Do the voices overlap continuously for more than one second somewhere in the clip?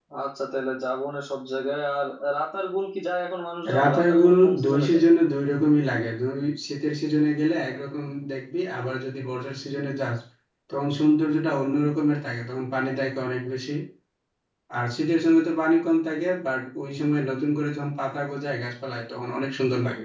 Yes, from 3.6 s

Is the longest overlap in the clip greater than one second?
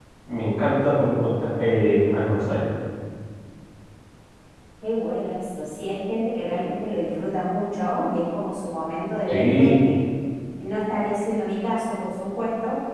No

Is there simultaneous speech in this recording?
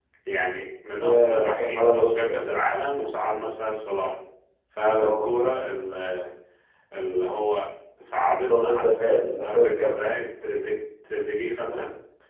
Yes, from 1.0 s

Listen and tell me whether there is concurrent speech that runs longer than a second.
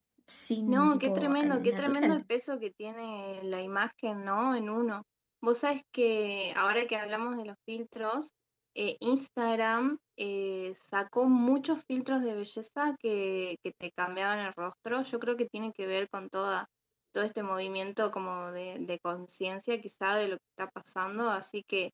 Yes, from 0.7 s

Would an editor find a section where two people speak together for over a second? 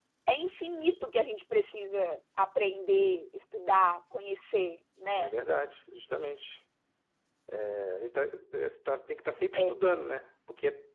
No

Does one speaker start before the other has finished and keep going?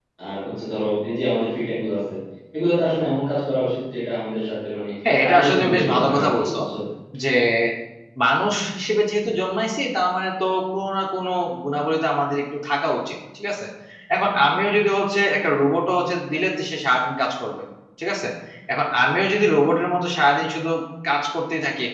Yes, from 5.2 s

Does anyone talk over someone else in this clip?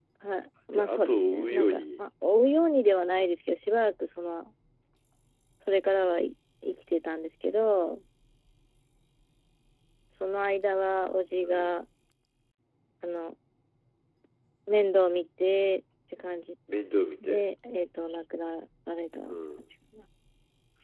Yes, from 0.7 s

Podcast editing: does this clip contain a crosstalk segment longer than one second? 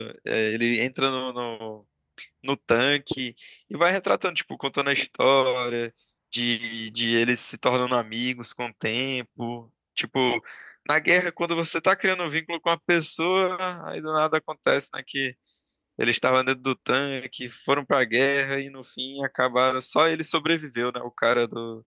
No

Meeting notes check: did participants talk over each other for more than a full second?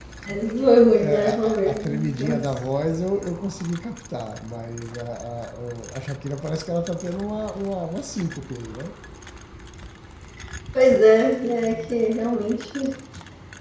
Yes, from 1.0 s

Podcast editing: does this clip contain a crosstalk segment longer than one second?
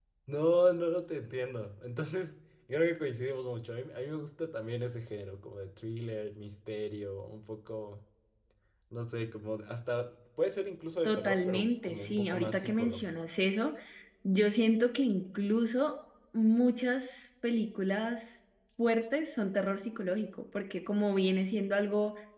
Yes, from 11.1 s

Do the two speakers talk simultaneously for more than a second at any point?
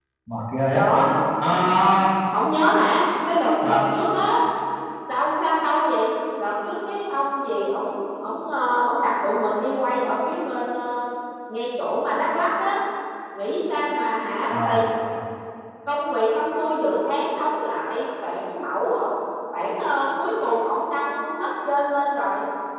No

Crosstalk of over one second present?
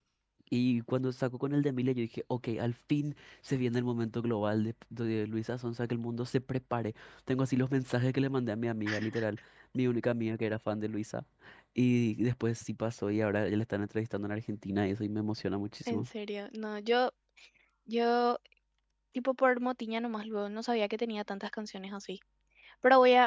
No

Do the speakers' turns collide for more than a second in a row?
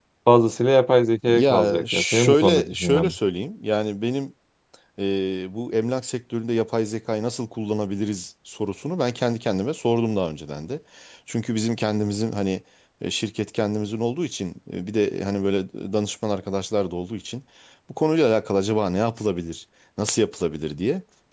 Yes, from 1.3 s

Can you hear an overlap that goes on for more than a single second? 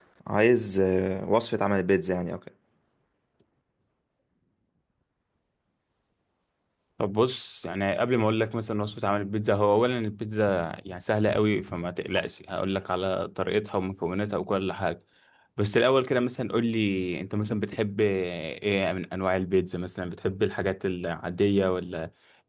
No

